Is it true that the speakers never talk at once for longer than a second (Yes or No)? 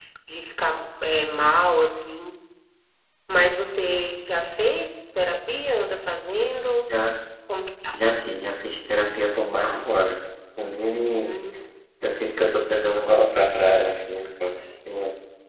Yes